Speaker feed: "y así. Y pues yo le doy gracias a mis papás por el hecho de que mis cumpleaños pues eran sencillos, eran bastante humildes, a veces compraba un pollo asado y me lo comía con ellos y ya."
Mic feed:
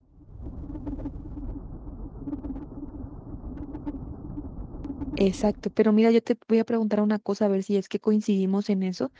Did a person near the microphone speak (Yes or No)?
Yes